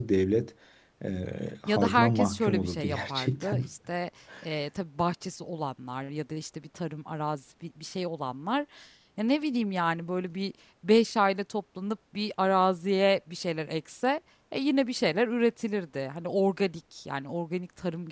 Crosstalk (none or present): present